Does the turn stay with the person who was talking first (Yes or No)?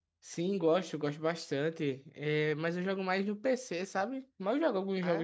Yes